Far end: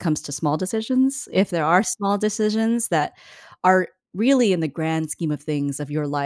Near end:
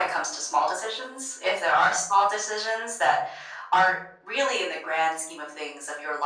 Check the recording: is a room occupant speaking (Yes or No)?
No